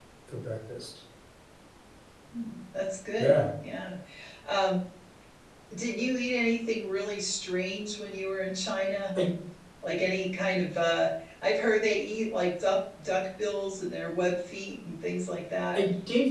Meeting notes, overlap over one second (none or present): none